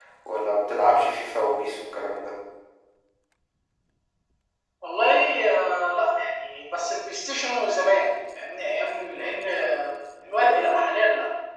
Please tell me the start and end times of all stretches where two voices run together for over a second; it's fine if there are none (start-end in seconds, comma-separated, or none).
none